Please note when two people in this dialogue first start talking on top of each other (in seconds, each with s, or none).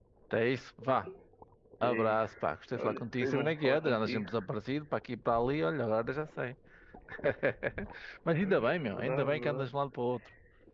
1.8 s